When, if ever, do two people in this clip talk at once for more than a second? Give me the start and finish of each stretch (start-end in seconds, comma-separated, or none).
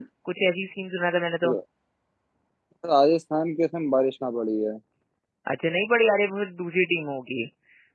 none